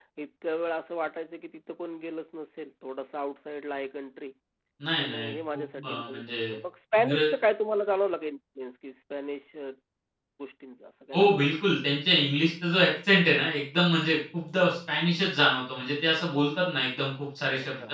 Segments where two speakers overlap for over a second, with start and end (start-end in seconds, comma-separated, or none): 5.0-6.4